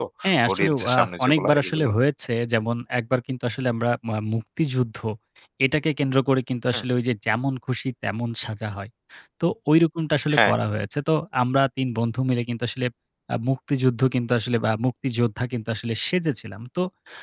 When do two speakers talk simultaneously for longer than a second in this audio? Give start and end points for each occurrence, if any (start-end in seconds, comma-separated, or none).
0.5-1.9